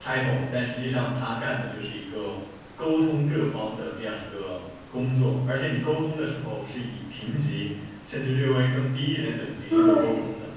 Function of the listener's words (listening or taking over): taking over